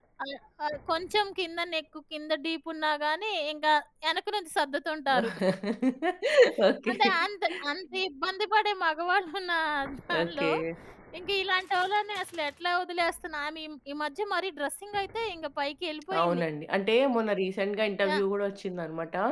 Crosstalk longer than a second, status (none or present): none